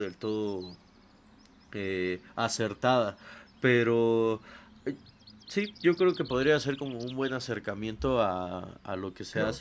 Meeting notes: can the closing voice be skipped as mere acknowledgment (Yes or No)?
No